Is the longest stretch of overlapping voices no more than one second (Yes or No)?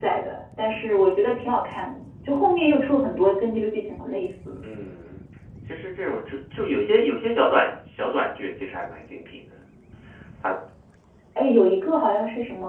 Yes